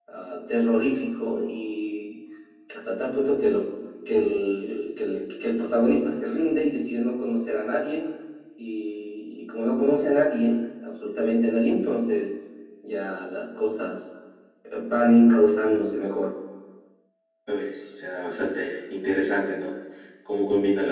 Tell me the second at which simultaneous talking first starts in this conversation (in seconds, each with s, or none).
none